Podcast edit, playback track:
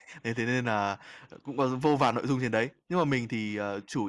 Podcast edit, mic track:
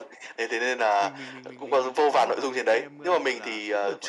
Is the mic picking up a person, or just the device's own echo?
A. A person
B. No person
A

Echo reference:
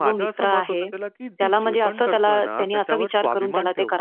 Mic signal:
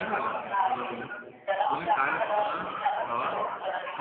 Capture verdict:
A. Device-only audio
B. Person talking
B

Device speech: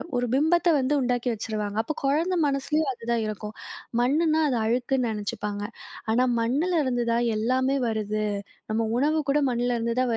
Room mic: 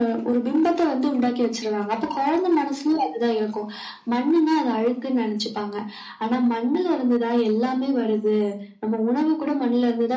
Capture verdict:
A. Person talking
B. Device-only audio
B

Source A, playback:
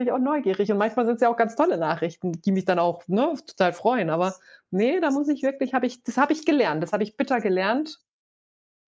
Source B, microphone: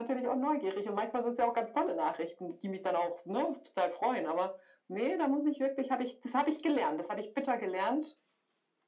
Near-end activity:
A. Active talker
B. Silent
B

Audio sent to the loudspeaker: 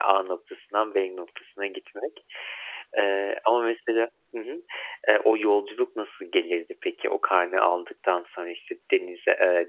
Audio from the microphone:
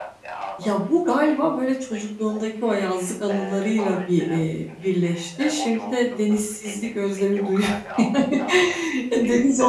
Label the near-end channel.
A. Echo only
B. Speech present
B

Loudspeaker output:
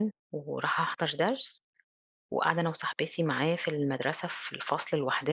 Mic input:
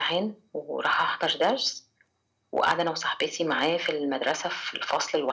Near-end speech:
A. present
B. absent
B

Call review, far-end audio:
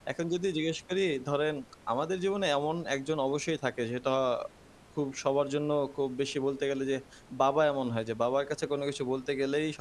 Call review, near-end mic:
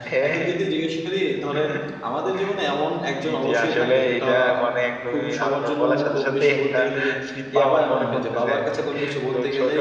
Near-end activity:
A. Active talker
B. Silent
A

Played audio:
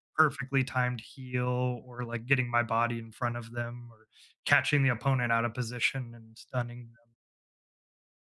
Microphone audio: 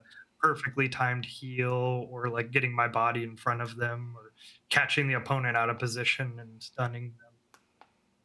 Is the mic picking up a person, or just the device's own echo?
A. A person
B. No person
B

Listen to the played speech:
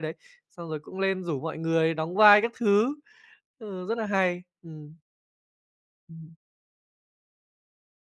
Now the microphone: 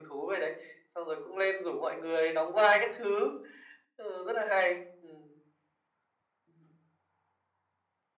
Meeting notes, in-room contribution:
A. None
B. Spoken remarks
A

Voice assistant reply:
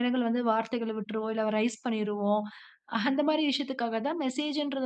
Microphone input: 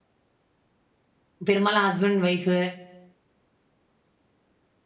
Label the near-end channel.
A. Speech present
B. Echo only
A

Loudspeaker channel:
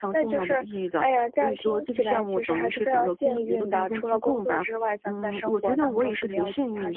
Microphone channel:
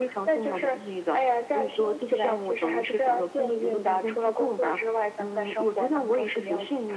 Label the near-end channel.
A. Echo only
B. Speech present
A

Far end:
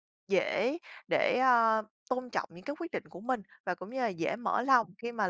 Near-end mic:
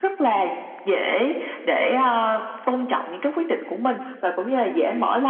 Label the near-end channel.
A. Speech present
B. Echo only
B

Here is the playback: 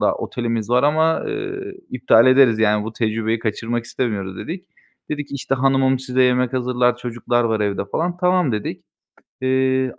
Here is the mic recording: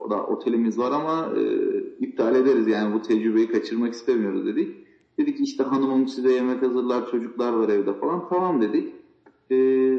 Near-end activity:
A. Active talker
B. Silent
B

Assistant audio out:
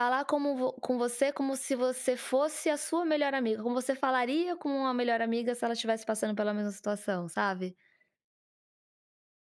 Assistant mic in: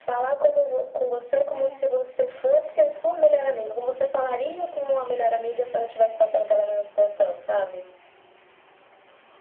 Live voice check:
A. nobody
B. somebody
B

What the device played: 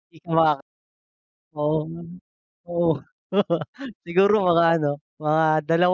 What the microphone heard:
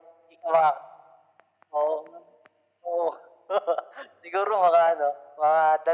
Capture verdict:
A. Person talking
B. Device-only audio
B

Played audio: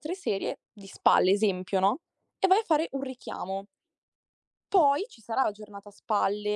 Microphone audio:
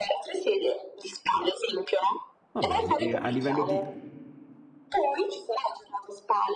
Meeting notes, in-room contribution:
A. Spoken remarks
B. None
A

